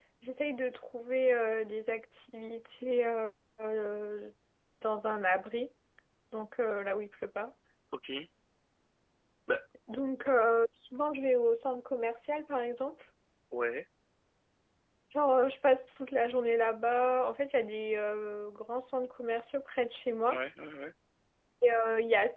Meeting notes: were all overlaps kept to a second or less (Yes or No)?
Yes